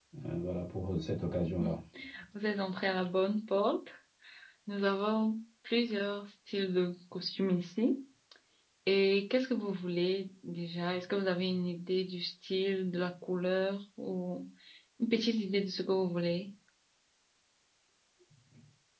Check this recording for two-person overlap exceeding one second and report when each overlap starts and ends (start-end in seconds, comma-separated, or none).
none